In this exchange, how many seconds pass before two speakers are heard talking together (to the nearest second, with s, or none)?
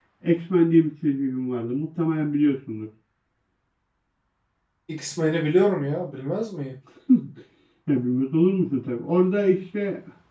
none